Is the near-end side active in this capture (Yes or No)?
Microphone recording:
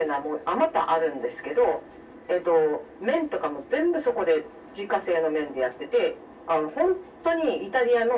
No